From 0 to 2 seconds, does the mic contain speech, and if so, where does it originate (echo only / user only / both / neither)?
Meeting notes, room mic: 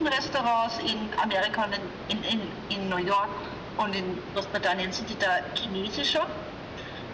echo only